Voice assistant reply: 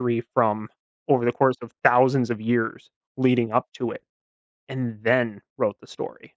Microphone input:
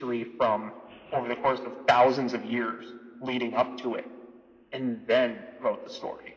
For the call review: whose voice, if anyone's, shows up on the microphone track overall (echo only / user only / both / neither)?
echo only